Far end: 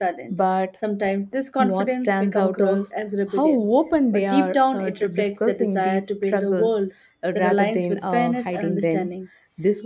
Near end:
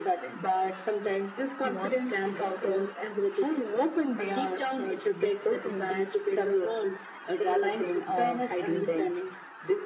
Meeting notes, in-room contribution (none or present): none